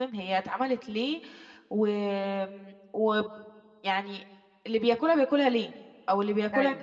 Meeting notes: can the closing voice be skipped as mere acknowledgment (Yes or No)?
Yes